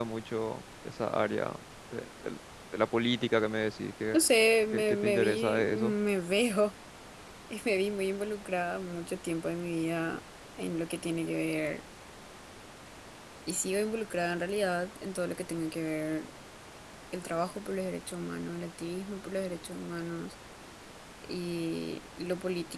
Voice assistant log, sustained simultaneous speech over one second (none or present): present